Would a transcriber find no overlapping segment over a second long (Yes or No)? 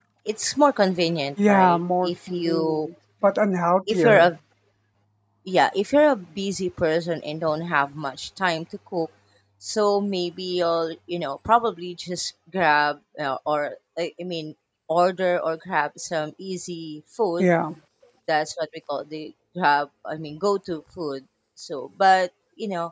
No